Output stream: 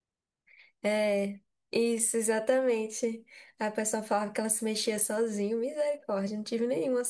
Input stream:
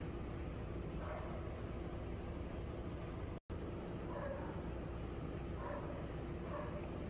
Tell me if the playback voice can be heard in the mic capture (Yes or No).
No